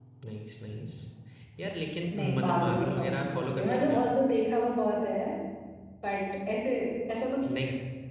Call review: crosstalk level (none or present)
present